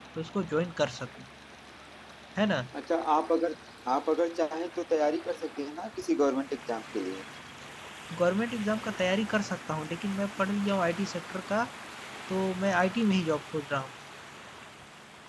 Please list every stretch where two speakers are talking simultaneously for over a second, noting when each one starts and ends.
none

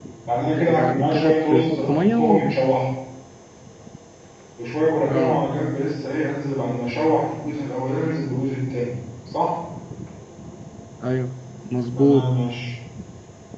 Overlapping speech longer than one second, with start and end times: 0.7-2.4

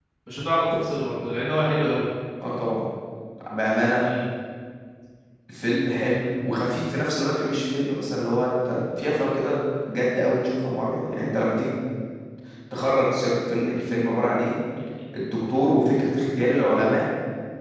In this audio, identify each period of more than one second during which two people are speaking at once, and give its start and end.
none

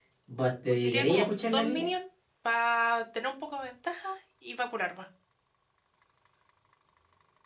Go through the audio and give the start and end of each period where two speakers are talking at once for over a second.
0.7-1.9

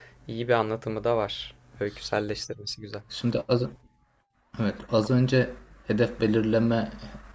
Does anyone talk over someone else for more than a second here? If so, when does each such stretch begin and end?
none

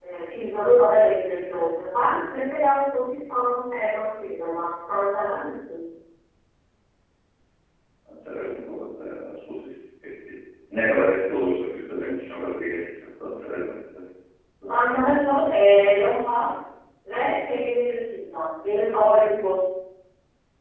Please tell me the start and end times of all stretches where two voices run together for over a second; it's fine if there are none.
none

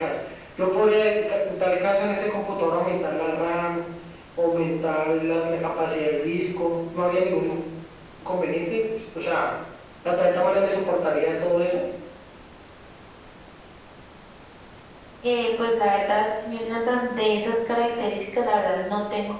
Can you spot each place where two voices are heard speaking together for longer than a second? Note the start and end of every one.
none

